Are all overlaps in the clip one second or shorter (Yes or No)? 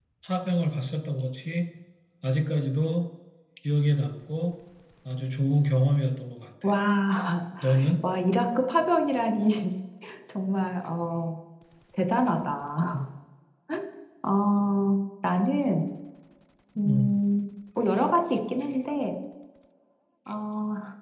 Yes